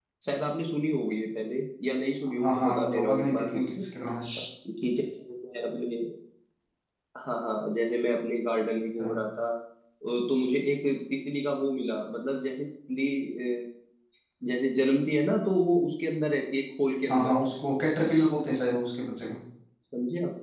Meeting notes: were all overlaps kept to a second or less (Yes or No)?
No